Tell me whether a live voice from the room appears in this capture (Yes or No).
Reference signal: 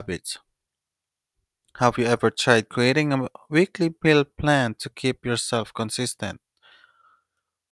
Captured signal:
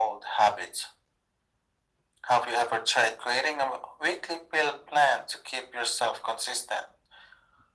No